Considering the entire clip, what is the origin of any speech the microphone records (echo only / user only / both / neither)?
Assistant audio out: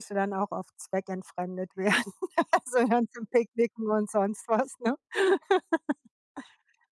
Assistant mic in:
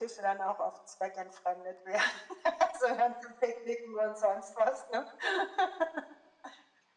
echo only